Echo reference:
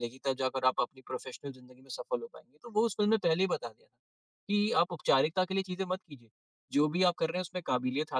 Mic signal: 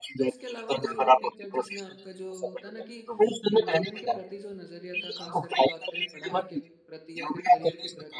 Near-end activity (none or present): present